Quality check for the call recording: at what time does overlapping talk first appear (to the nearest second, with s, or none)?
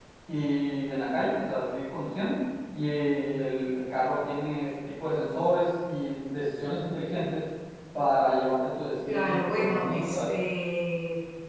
9 s